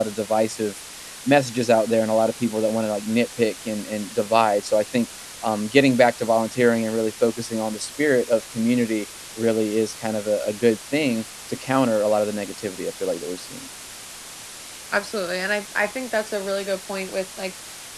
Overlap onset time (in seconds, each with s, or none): none